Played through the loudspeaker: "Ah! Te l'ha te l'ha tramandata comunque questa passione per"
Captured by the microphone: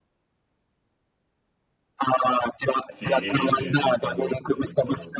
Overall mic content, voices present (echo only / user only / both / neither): both